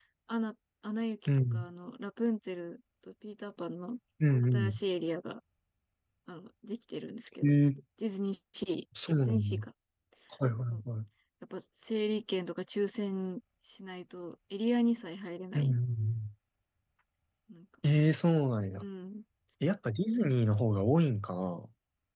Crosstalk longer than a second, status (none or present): none